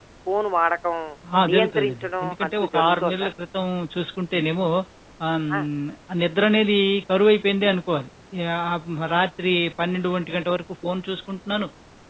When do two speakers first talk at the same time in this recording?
1.5 s

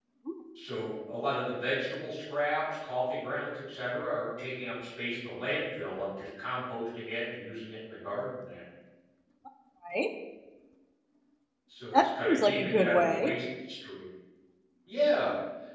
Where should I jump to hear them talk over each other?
11.9 s

